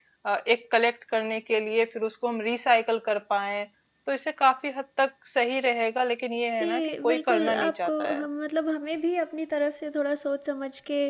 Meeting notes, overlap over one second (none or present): present